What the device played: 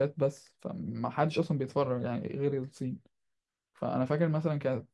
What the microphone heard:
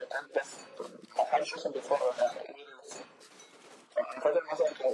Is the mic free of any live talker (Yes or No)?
Yes